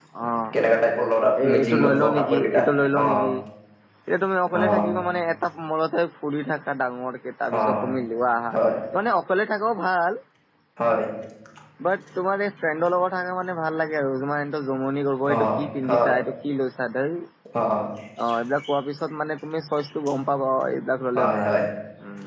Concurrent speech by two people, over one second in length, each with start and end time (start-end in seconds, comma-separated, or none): 1.4-2.6